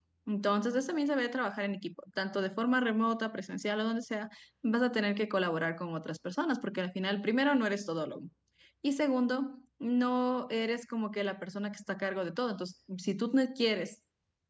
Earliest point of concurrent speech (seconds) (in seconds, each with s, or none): none